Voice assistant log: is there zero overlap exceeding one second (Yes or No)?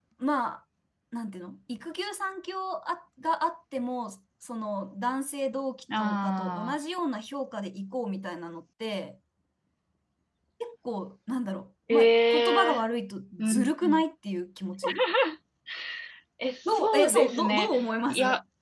No